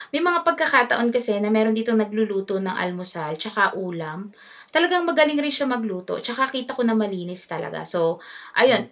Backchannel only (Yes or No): Yes